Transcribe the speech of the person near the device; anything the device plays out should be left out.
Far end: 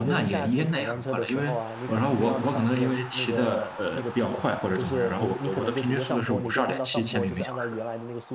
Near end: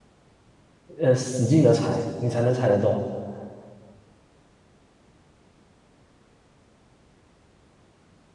呃使劲的踩，你才能踩得动。

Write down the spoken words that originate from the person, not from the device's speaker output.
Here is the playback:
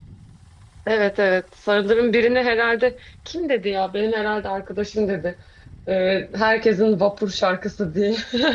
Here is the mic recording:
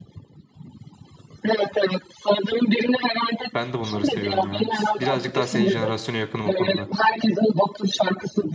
Ben de bunları seviyorum ya. Birazcık daha senin jenerasyona yakınım o konuda.

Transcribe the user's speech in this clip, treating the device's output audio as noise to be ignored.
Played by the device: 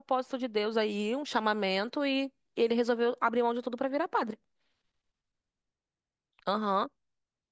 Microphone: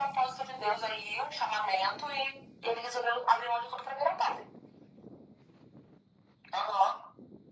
none

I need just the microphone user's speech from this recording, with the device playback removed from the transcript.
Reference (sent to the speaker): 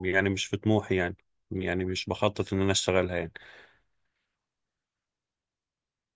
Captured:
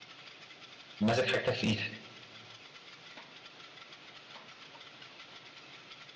ماسك حاجتك في ايدك

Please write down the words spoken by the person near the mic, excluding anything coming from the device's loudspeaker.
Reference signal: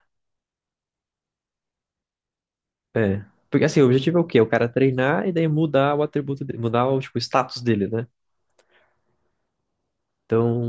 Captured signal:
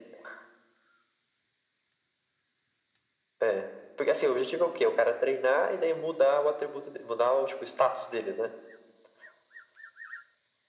none

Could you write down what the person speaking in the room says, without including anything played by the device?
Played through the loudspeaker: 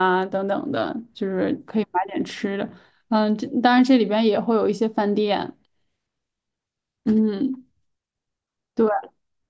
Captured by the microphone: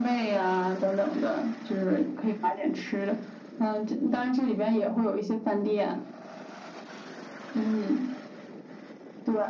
none

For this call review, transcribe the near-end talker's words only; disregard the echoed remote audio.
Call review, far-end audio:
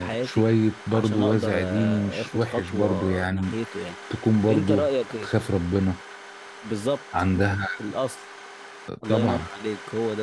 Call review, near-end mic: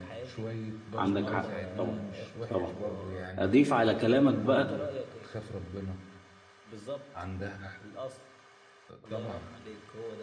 عندك حق طبعا طبعا اضيف على كلامك بقى

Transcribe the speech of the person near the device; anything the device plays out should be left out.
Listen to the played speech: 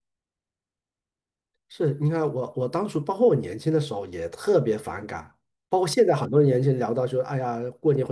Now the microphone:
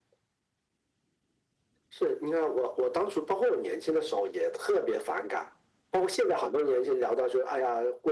none

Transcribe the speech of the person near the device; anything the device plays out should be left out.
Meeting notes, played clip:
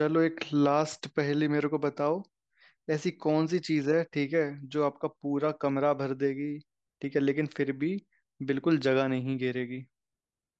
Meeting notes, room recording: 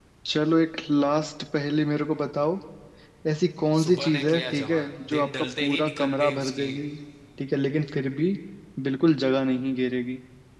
सुबह ने किया जवान दिन ढलते ही निकल गई उसकी

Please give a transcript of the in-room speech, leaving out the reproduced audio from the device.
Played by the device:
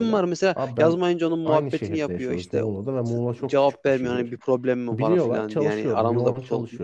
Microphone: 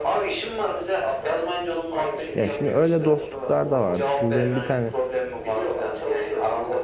Ya şimdi öyle dostluklar da vardır. Şimdi benim bir tane

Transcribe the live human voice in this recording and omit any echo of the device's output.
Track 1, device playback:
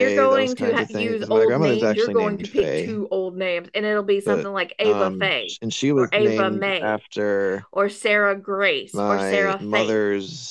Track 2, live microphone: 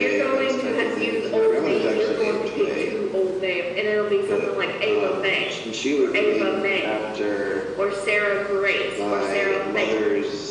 none

